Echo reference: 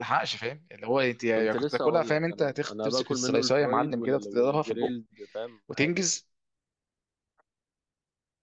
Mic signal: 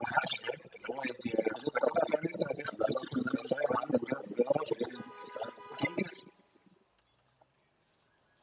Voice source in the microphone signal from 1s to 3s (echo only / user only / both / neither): echo only